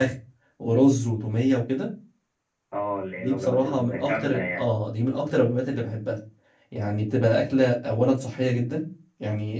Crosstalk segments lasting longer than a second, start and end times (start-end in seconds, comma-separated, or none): 3.2-4.6